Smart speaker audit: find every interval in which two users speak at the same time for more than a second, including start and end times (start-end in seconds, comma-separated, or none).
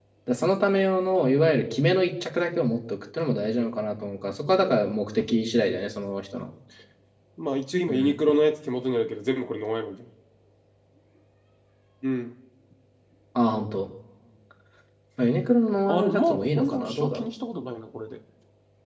15.9-17.3